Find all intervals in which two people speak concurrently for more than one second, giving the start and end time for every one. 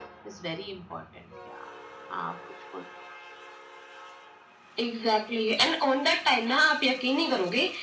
none

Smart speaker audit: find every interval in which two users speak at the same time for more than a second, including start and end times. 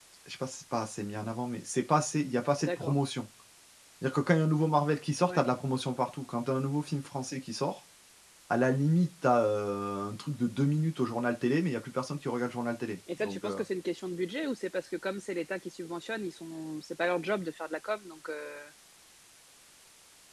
none

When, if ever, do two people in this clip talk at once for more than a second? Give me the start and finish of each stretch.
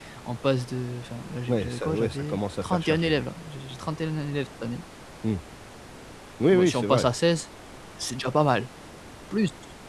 1.5-3.3

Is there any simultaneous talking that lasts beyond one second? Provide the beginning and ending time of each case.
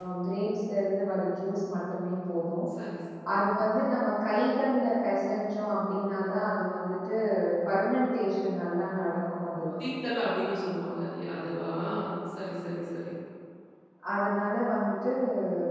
none

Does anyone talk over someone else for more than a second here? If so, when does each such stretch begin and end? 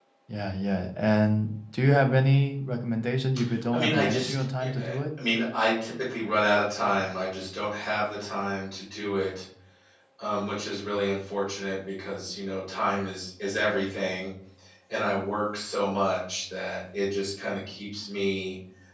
3.7-4.9

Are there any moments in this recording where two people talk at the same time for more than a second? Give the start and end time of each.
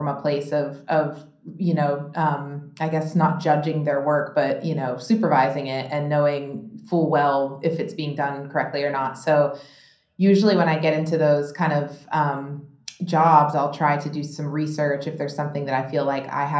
none

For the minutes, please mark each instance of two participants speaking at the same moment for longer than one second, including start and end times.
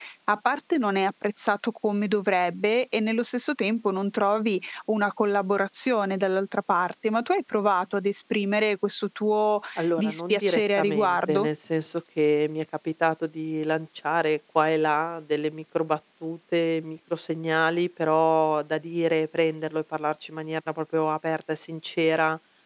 10.0-11.5

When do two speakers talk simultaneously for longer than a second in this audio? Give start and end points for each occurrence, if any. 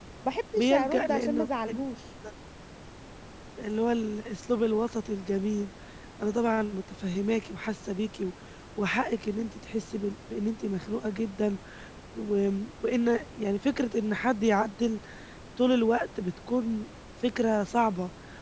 0.6-1.8

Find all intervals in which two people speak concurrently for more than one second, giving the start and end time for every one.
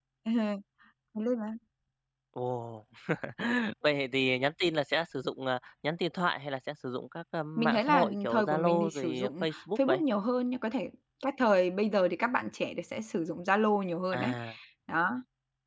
7.6-10.0

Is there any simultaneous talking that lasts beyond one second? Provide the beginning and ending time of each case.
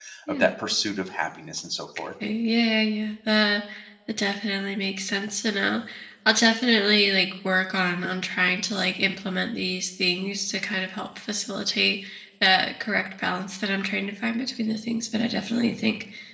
none

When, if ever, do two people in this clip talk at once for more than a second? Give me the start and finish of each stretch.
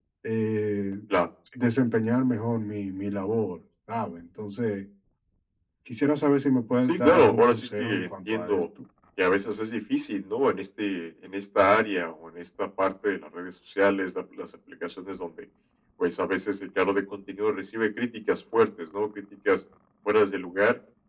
6.9-8.6

